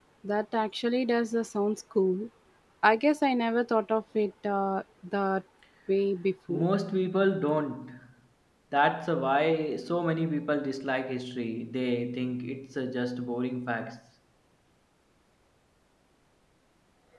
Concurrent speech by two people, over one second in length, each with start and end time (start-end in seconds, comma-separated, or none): none